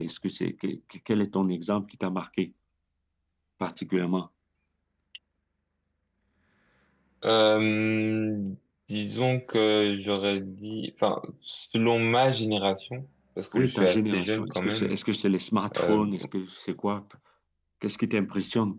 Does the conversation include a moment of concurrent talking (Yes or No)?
Yes